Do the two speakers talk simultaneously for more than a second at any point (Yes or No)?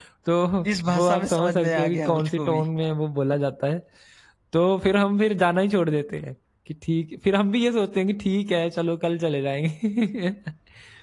Yes